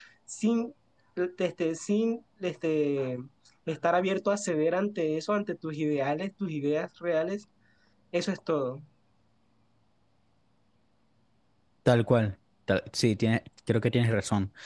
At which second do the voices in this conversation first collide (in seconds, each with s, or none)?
none